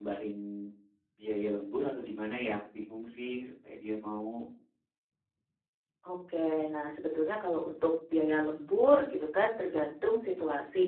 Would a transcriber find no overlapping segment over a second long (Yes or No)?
Yes